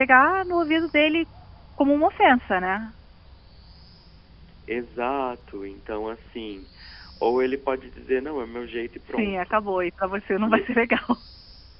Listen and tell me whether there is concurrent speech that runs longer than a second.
No

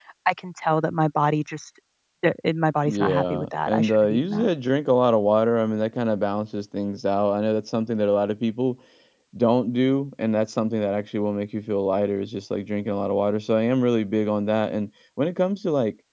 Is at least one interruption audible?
Yes, from 2.9 s

